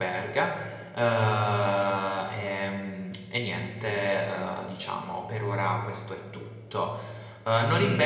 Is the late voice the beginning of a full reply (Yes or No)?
No